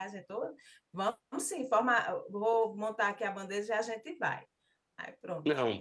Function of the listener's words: taking over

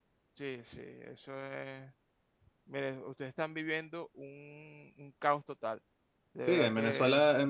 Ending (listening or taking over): taking over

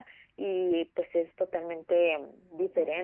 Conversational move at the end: listening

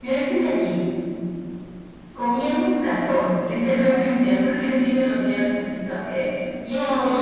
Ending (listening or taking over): listening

